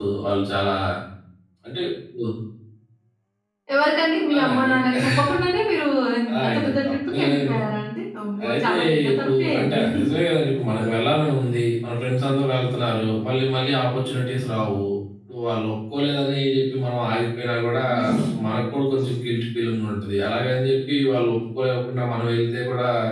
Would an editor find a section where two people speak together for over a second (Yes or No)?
Yes